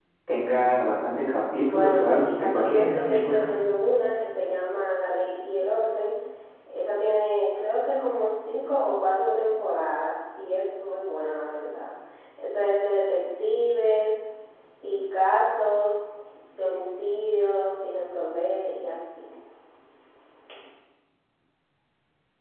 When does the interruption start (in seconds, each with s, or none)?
1.6 s